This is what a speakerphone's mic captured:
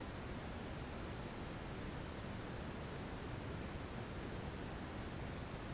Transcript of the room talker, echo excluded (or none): none